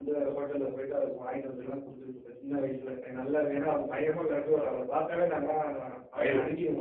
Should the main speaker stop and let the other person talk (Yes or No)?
No